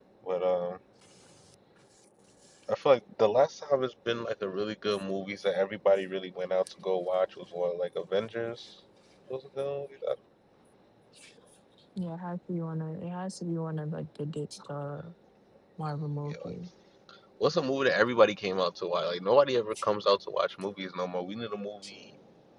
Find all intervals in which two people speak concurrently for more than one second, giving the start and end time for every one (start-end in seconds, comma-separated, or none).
none